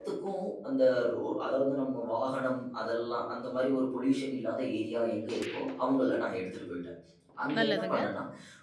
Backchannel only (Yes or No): Yes